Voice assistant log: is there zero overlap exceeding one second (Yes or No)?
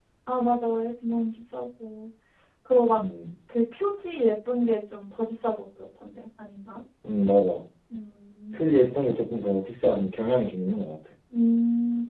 Yes